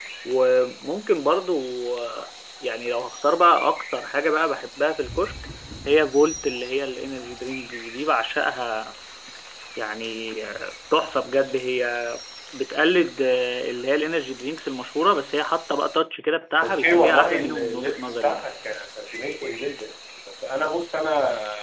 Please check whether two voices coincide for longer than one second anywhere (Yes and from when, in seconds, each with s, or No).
Yes, from 16.6 s